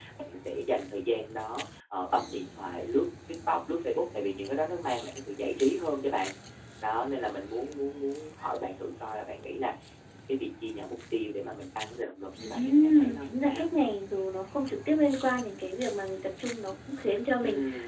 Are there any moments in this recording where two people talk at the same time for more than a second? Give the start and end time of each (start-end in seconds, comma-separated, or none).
12.4-13.7